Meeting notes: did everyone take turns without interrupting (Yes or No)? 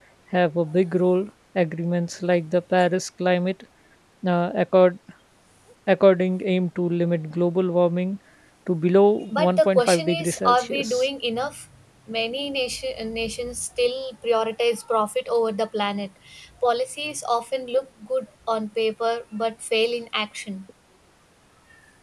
No